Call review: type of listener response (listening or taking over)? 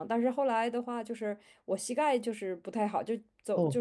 listening